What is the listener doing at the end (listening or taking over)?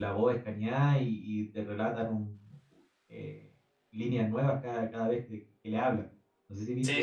taking over